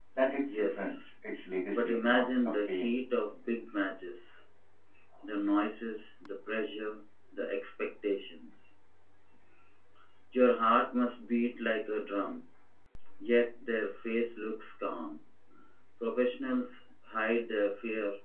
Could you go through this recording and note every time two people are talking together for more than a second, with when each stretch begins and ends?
1.7-3.0

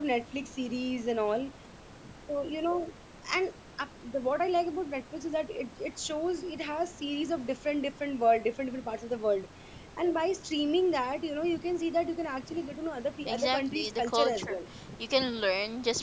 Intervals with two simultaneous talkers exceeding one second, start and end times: 13.3-14.6

